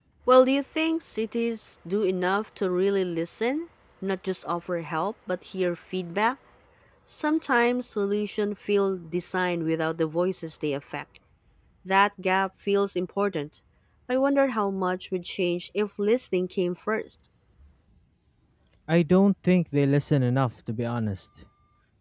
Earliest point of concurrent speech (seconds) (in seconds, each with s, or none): none